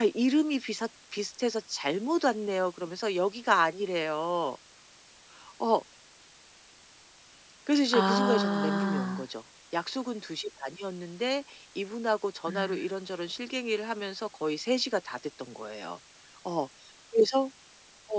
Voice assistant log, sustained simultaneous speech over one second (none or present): present